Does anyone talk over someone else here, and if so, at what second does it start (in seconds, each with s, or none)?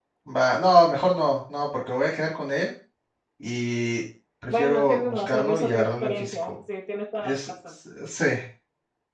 4.5 s